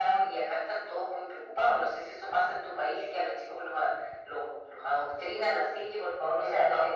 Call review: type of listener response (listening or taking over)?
taking over